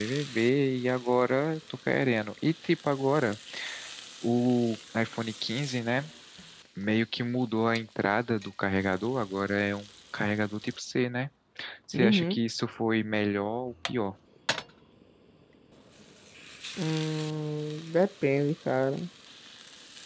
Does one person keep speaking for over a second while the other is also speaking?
No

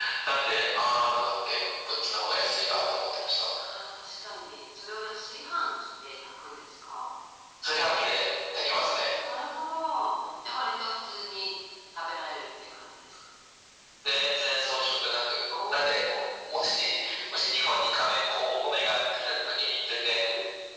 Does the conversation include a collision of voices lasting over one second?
No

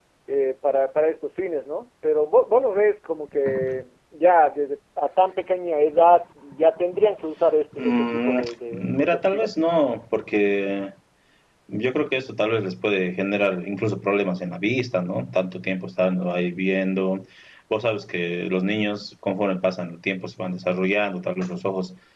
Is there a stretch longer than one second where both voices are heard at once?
Yes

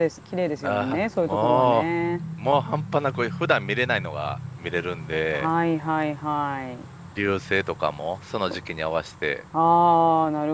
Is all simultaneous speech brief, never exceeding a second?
No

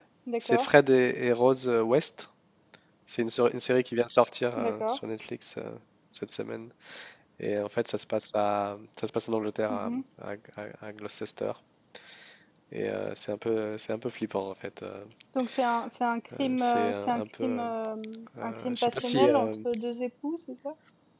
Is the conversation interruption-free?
No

